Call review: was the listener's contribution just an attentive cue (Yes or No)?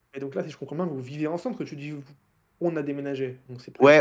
No